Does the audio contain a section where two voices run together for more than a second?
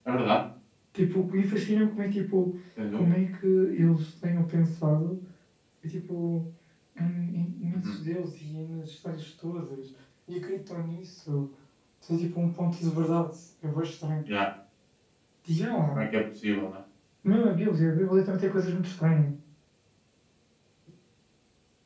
No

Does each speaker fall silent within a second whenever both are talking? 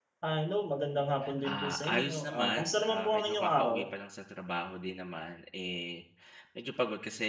No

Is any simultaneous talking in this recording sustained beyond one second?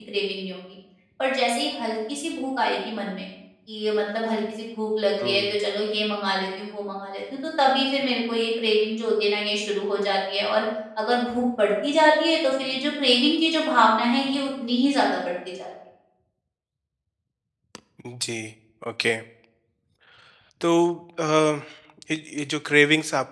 No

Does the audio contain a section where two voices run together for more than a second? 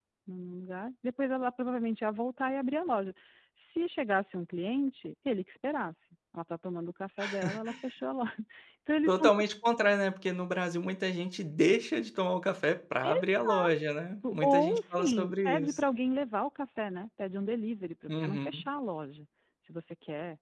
Yes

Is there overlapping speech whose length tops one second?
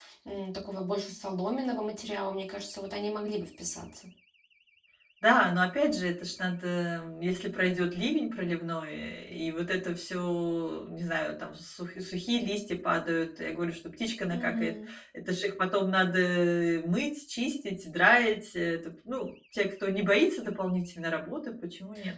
No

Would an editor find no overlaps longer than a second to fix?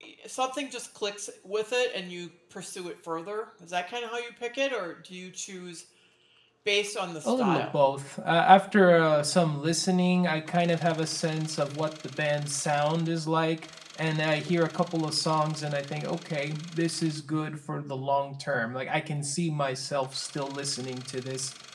Yes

